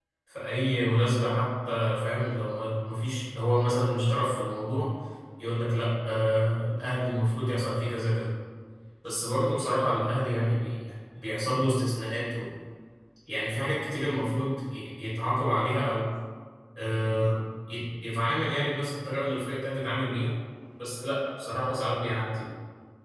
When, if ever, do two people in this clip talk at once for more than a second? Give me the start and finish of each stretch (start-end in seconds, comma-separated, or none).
none